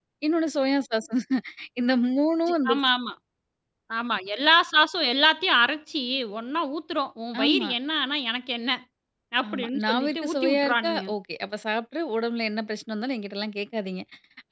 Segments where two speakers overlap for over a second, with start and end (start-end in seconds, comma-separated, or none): 9.5-11.0